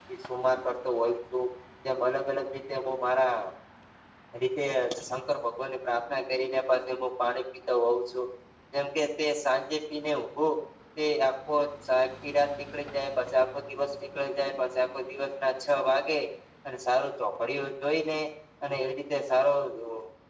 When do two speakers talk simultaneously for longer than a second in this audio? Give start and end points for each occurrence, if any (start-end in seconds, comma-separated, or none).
none